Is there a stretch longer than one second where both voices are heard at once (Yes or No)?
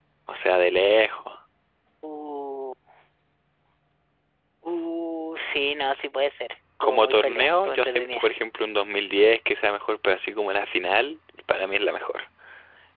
Yes